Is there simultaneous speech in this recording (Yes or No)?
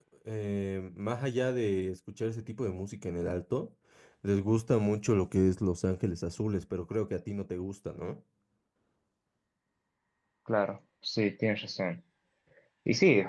No